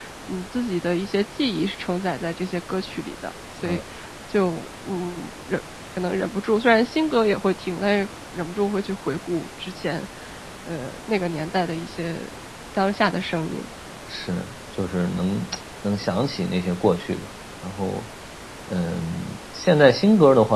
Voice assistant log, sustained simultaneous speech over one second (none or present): none